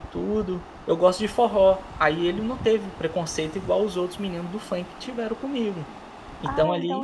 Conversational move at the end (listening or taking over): taking over